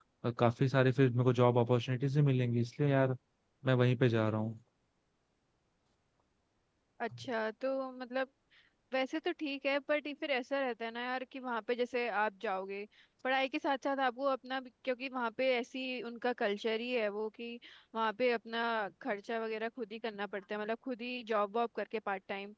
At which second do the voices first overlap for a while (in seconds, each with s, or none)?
none